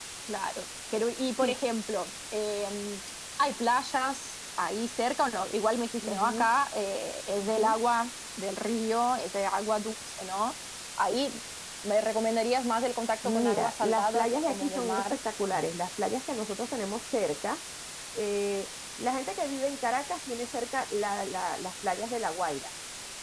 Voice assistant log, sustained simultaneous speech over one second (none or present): present